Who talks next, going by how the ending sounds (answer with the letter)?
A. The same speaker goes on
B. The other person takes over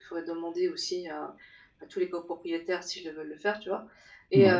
A